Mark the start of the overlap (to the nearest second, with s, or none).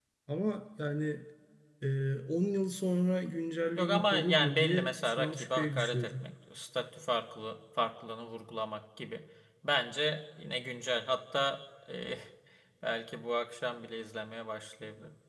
4 s